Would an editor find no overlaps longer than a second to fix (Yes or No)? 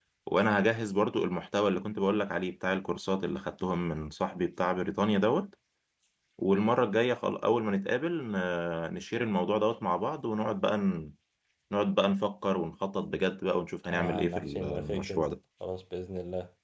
No